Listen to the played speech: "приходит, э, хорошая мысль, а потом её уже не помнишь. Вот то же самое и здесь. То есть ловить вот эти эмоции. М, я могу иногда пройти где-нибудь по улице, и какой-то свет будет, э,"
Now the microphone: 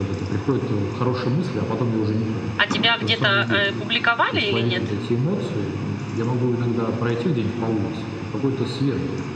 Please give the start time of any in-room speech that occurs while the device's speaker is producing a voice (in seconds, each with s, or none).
2.5 s